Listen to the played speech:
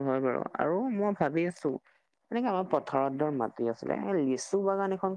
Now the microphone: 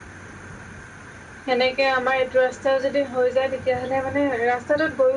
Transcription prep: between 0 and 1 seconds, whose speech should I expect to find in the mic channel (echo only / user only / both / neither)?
neither